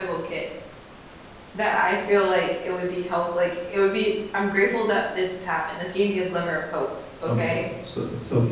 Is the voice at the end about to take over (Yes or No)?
Yes